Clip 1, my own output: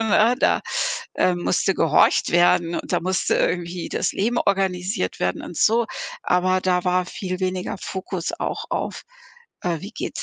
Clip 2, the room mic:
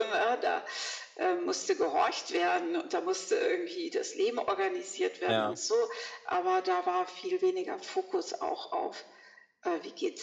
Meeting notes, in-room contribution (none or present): present